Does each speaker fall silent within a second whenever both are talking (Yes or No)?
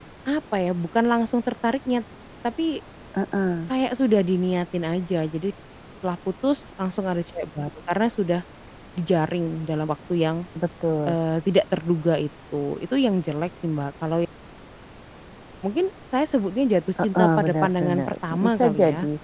No